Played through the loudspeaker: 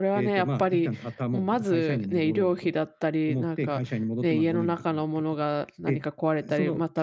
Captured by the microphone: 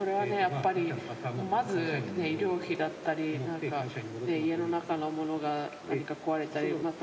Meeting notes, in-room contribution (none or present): none